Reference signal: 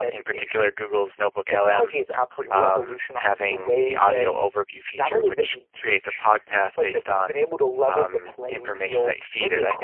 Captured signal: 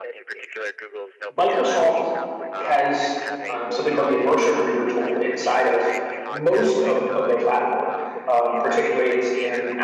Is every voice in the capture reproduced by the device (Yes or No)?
No